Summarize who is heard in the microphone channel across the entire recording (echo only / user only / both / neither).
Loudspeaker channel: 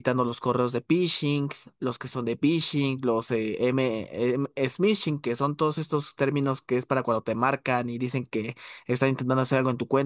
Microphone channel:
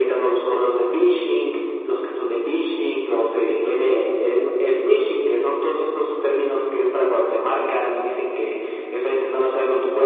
echo only